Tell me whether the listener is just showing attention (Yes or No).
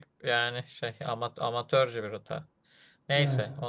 Yes